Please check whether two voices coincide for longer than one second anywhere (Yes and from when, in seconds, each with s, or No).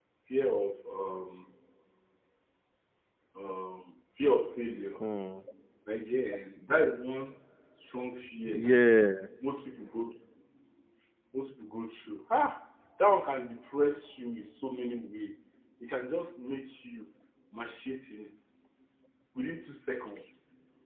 No